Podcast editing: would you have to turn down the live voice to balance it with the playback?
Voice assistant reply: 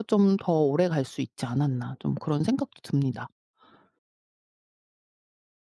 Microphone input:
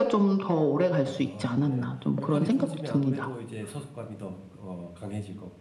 No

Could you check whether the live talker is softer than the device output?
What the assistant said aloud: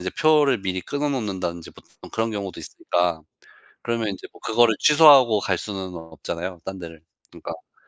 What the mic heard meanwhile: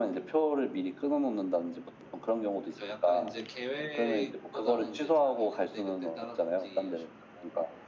Yes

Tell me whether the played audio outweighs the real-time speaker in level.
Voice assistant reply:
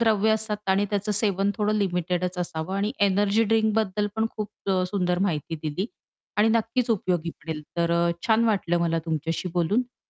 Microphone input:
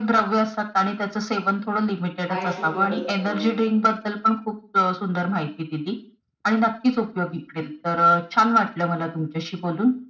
Yes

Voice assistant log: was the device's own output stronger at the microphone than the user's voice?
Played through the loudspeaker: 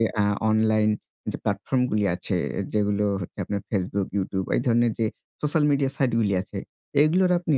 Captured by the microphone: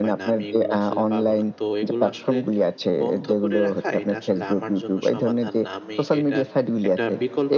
Yes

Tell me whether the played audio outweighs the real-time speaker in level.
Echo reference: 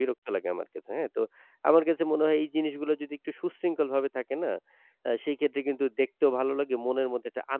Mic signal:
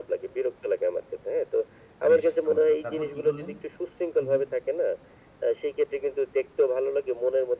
Yes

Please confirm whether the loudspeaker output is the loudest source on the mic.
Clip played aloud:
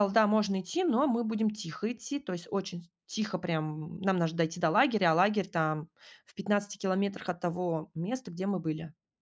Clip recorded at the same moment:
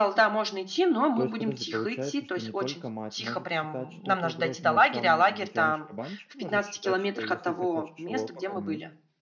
Yes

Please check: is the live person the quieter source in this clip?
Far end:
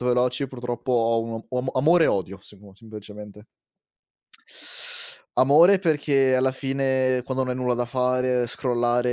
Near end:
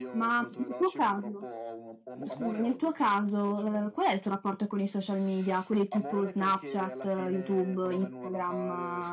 No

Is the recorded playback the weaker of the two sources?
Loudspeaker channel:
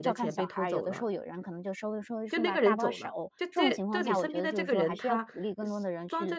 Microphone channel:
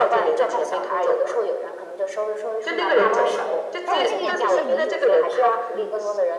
No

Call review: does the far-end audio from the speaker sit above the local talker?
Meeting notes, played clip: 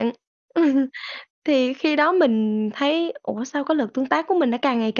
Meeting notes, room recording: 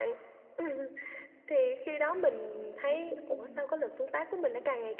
Yes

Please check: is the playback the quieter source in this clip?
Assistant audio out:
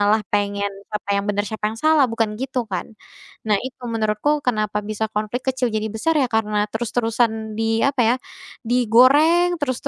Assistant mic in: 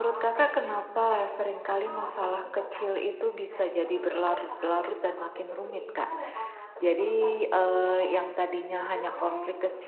Yes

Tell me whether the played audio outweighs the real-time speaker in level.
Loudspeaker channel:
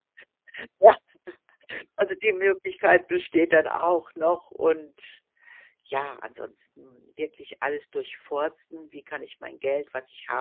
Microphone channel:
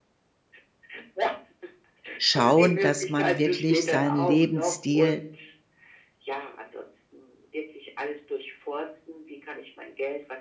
No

